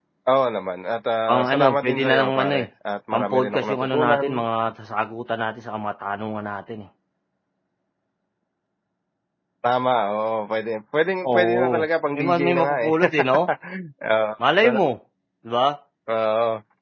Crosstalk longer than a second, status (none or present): present